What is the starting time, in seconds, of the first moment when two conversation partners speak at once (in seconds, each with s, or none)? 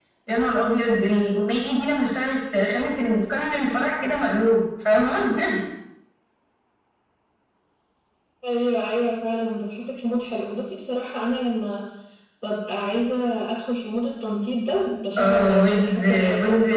15.2 s